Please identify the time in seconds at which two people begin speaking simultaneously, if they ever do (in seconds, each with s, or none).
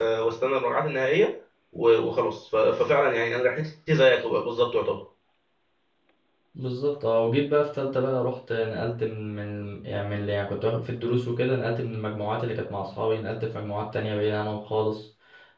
none